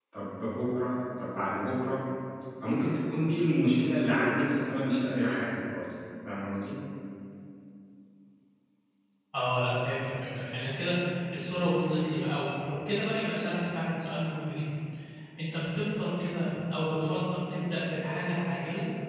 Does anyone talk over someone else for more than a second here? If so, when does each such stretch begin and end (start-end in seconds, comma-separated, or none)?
none